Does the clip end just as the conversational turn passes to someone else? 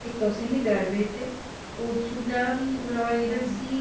Yes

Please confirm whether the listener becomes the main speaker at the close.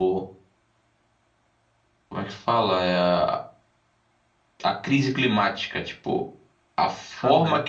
No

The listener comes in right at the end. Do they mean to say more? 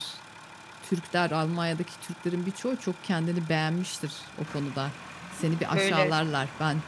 No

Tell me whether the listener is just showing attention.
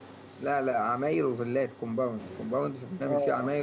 Yes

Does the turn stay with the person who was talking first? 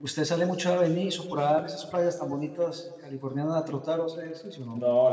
No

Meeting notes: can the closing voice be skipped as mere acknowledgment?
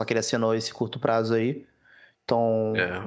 No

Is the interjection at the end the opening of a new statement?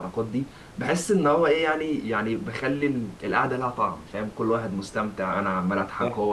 No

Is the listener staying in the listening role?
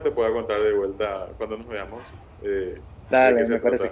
No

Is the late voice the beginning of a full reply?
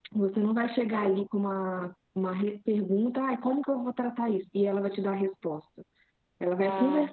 No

